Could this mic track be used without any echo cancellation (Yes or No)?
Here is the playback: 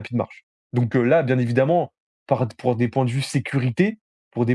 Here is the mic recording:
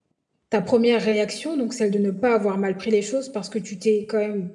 Yes